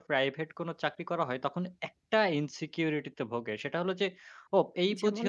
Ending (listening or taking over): listening